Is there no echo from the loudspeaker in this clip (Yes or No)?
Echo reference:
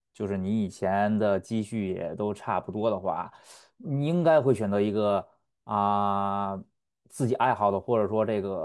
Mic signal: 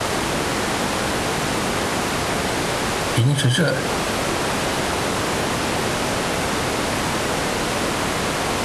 Yes